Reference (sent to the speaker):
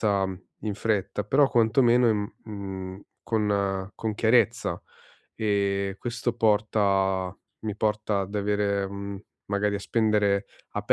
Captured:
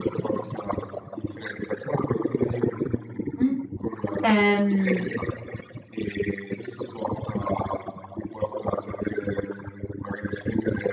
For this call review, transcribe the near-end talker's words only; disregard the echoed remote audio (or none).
Mh. Ehm,